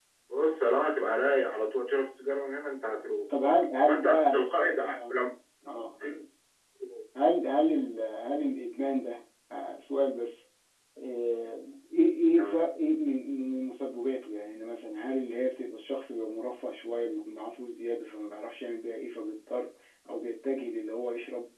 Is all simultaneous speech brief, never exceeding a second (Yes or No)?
Yes